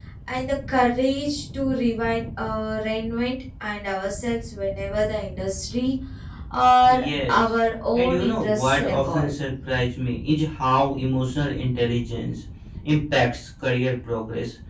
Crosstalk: present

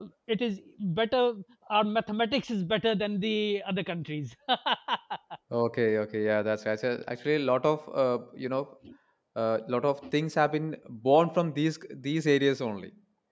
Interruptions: none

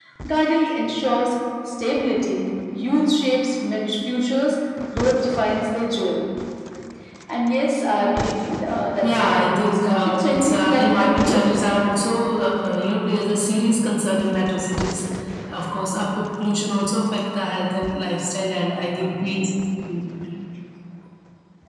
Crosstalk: present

